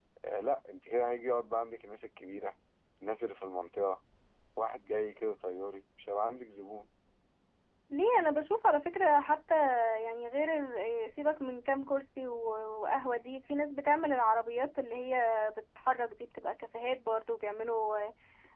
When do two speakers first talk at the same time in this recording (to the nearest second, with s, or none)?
none